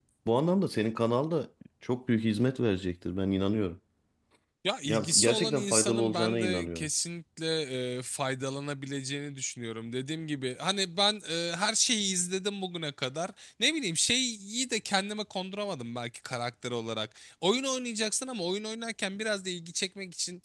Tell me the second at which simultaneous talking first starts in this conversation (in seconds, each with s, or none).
4.8 s